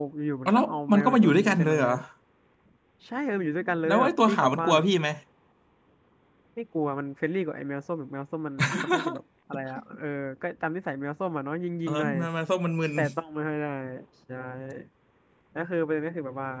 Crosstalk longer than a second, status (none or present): present